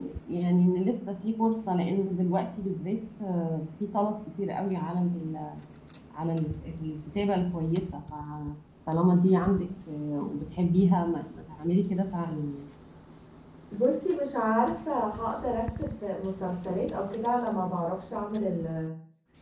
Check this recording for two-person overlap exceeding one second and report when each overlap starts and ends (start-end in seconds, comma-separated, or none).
none